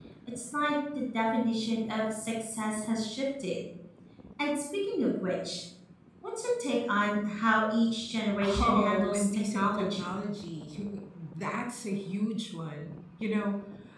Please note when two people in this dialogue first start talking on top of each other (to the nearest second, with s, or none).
8 s